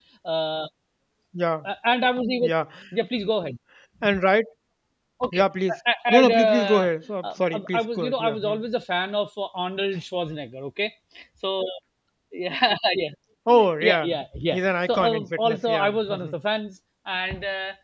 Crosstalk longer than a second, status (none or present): present